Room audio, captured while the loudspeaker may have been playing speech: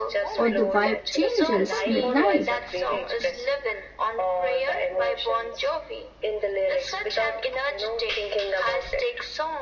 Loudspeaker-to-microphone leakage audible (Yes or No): Yes